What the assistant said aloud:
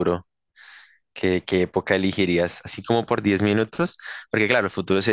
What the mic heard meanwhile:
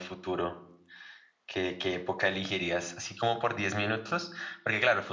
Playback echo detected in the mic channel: Yes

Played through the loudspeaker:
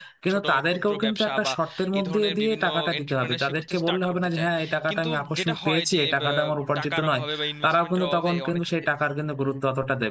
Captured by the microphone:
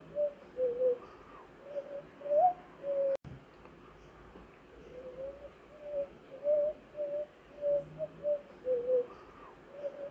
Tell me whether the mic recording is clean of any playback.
Yes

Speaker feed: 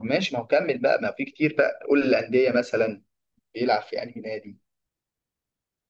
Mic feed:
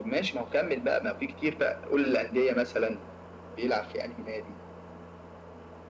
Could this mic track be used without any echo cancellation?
No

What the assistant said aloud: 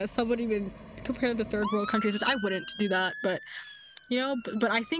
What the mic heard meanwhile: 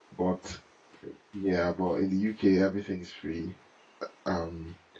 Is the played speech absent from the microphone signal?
Yes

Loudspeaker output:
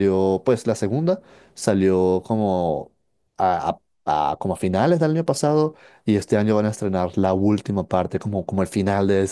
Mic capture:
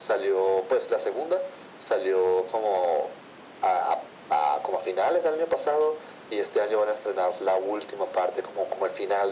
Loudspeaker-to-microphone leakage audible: Yes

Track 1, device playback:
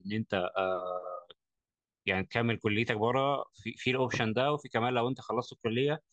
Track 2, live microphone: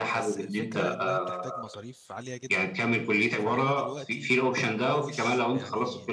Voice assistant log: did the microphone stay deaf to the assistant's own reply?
No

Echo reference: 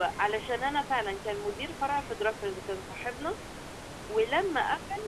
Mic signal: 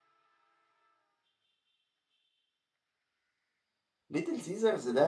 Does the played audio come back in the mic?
No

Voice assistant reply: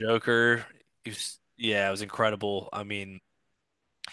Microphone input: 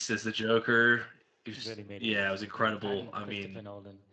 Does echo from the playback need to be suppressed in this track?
Yes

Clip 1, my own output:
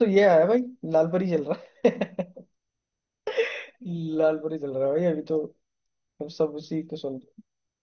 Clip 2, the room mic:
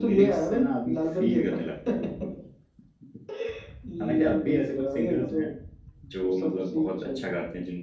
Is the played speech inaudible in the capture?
No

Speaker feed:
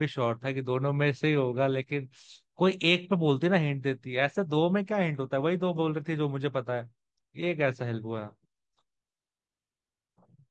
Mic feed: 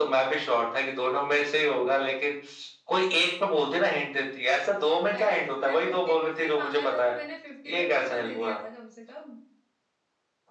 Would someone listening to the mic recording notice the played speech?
Yes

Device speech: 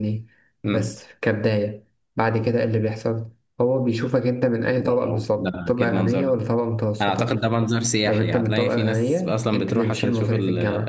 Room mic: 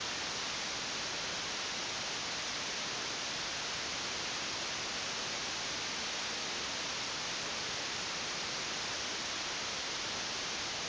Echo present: No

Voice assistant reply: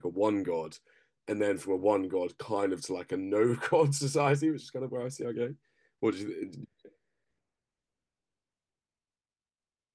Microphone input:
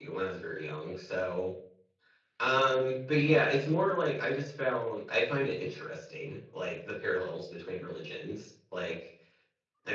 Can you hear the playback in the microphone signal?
No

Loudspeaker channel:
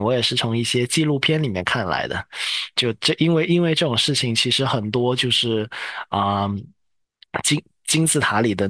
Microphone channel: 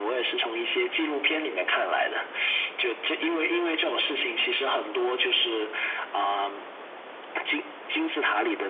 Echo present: Yes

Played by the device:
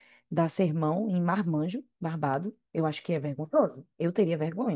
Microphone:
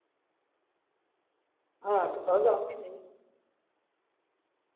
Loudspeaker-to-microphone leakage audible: No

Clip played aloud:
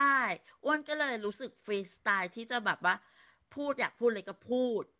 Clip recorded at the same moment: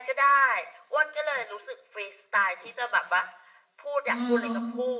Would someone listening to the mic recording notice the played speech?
Yes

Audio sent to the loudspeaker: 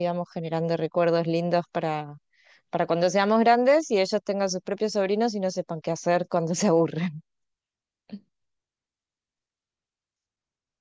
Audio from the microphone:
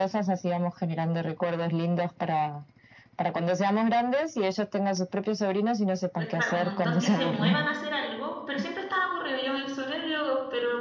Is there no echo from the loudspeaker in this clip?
No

